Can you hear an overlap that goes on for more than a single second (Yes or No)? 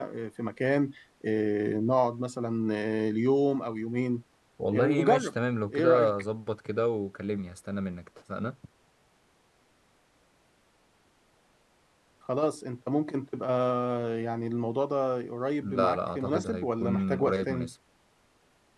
Yes